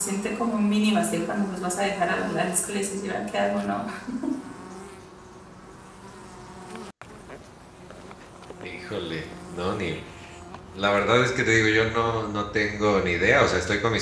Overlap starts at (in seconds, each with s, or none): none